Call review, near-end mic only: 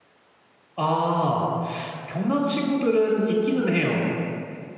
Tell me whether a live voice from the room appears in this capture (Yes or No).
Yes